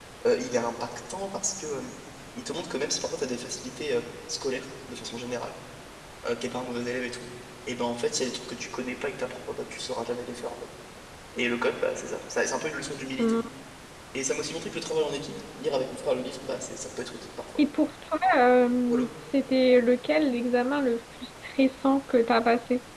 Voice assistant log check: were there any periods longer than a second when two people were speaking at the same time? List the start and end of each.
none

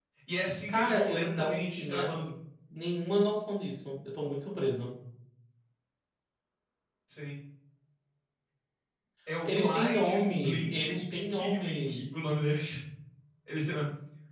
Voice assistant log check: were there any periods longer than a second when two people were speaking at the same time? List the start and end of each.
0.7-2.1, 9.4-12.4

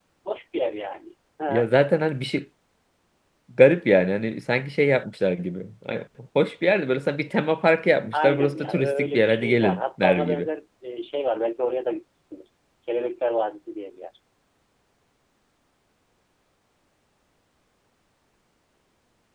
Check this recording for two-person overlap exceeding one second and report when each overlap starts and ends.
8.1-10.5

